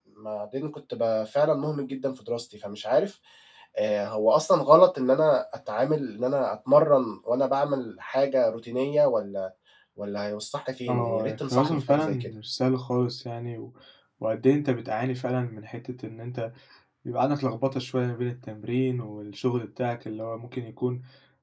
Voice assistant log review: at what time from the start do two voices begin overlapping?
11 s

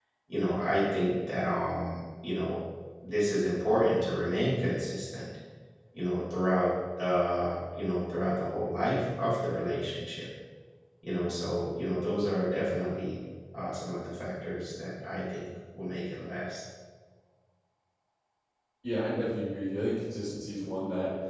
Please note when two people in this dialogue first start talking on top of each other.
none

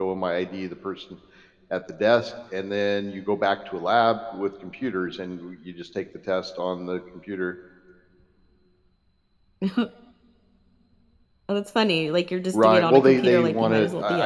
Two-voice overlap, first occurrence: 13 s

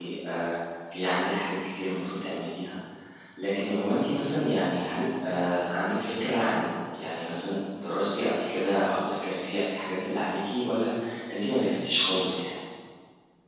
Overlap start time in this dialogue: none

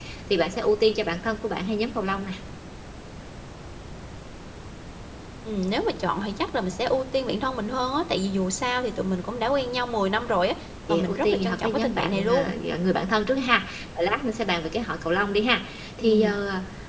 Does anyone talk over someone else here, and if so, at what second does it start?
11 s

